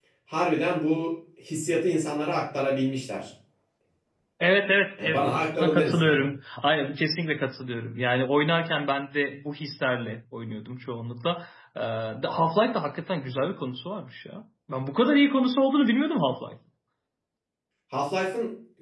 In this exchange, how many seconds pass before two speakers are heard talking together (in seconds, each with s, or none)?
5.0 s